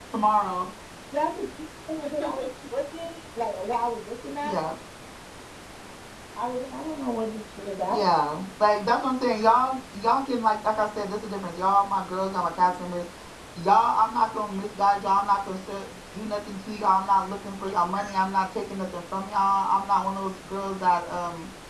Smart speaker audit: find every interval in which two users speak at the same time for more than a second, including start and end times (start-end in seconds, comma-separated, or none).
none